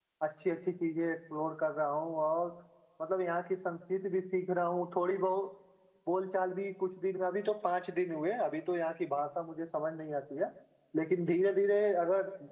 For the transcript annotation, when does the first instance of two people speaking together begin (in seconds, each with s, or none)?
none